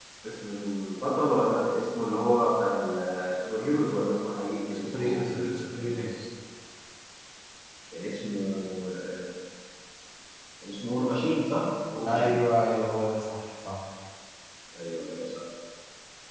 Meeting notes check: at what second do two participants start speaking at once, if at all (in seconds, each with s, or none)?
4.7 s